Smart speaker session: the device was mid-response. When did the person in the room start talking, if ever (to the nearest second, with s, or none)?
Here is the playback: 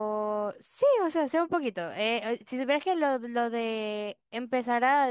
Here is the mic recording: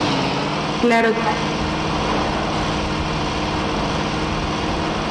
1 s